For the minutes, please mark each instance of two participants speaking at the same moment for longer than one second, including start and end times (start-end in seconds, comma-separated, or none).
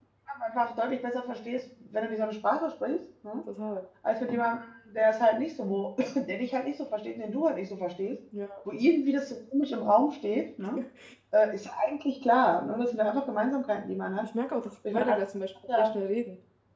none